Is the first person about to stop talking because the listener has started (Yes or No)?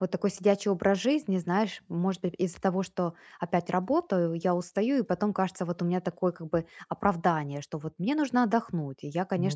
No